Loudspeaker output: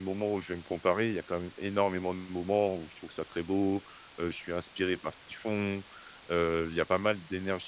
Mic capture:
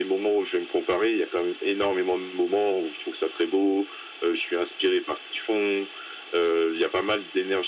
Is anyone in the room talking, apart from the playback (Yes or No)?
No